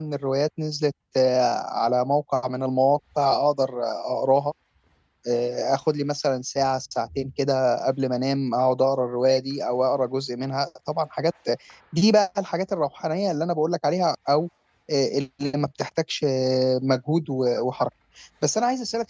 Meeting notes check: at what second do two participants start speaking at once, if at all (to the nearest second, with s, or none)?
none